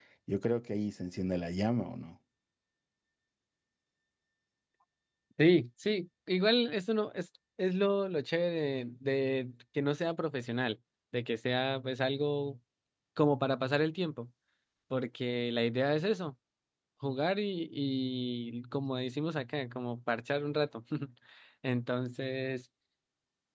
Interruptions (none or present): none